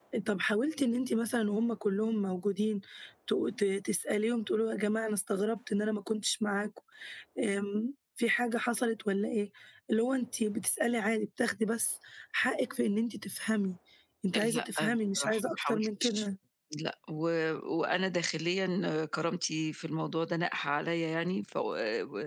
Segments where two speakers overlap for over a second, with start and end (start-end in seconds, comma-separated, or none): 14.5-16.2